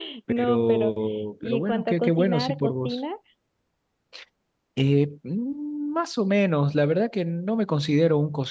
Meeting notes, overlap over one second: present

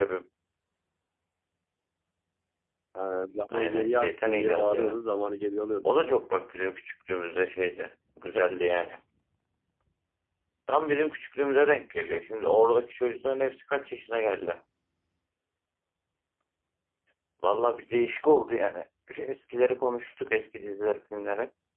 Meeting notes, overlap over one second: present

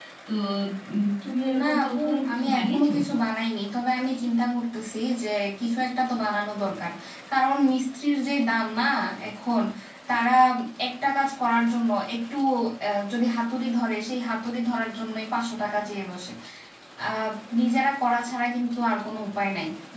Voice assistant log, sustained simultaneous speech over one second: present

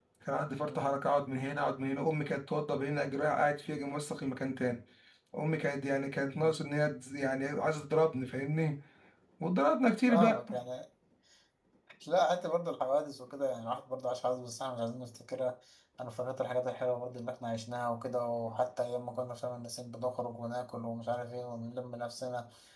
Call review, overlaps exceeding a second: none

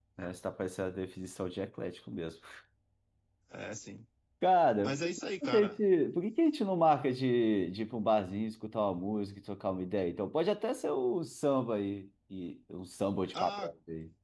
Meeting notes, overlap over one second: none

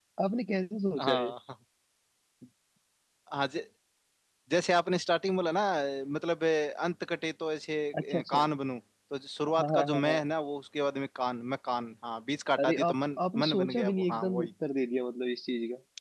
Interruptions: present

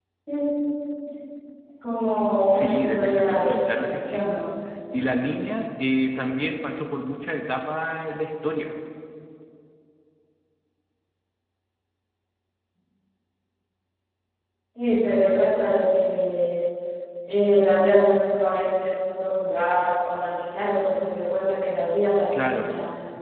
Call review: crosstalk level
present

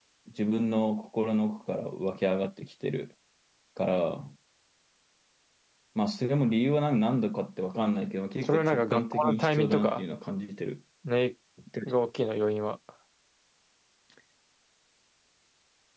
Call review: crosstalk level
present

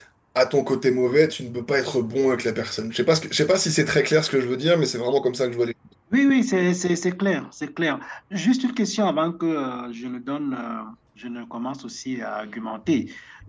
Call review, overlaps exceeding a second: none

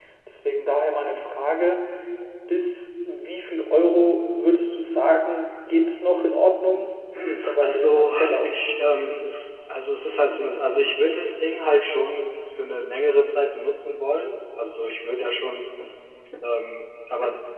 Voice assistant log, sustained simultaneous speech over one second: present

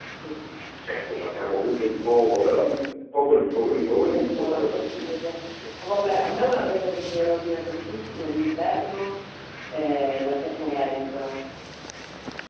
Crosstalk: present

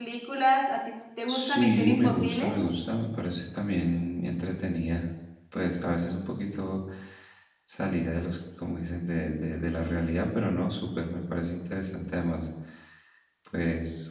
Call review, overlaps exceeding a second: present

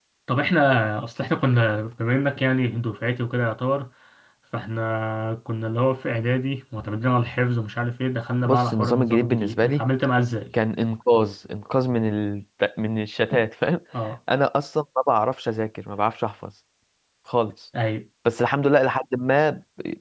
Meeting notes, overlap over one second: present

